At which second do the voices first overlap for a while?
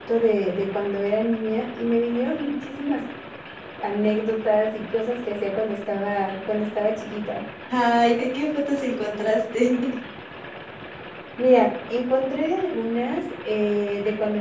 none

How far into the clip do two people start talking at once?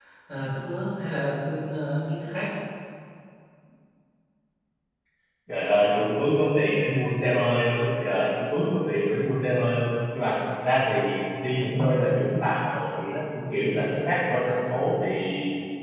none

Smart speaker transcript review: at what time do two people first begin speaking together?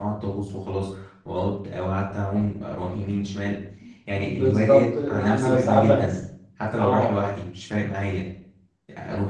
4.1 s

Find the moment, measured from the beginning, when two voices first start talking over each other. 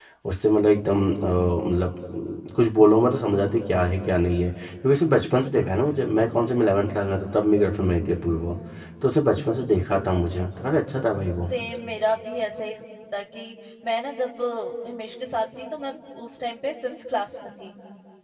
none

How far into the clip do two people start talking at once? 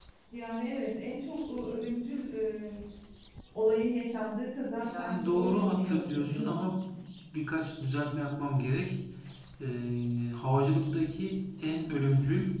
4.7 s

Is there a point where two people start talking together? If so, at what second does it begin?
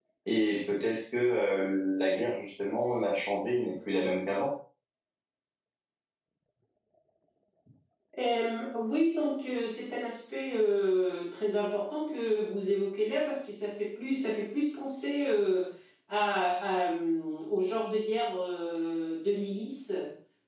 none

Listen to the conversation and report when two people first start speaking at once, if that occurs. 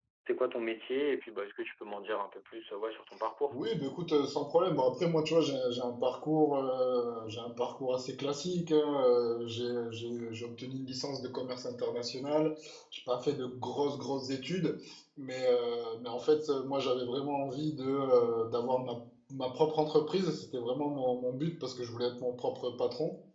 none

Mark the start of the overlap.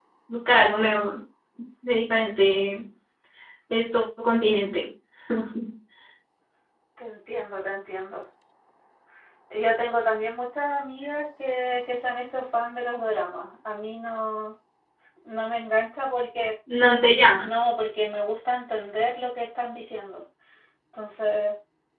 none

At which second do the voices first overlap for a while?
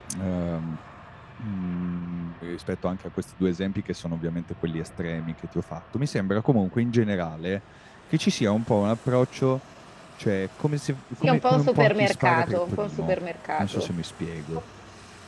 11.2 s

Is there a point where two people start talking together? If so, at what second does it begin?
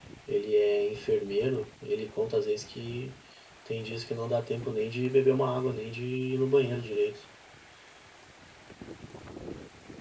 none

